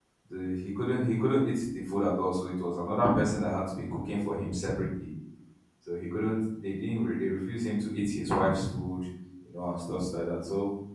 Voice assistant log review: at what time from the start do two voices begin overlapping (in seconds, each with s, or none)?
none